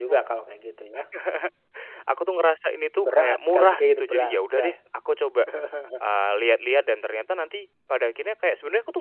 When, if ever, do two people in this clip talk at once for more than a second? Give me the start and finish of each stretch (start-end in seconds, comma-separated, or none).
3.0-4.7